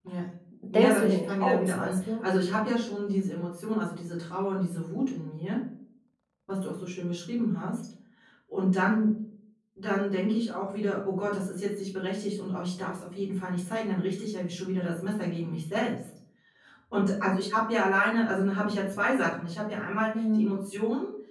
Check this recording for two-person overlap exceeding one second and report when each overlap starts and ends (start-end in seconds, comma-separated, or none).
0.7-1.9